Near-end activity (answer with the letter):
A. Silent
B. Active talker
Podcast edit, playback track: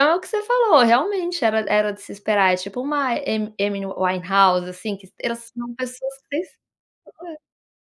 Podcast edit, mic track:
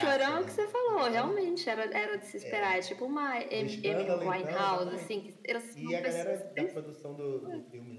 B